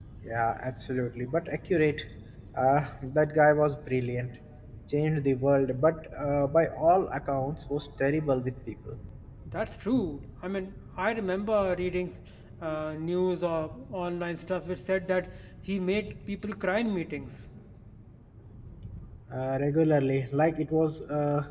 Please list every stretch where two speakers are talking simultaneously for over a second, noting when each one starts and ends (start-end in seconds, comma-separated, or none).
none